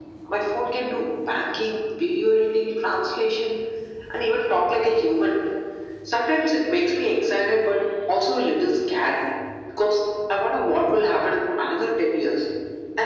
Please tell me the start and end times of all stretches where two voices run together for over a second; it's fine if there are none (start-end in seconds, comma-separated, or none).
none